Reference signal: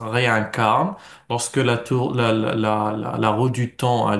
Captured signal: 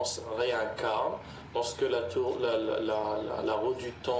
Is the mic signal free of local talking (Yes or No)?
Yes